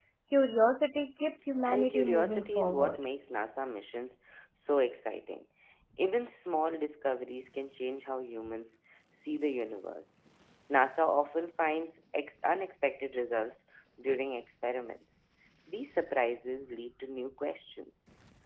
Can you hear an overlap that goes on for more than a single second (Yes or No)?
Yes